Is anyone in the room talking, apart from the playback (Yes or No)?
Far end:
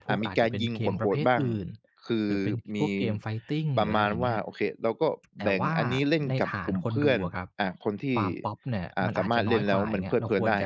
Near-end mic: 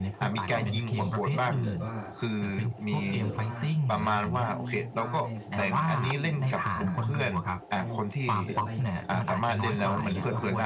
Yes